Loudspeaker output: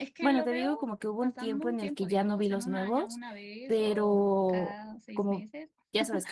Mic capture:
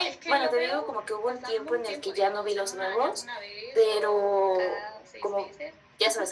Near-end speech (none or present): none